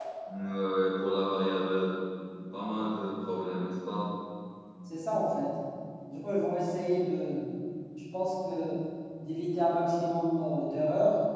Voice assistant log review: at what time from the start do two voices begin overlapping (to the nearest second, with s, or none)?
none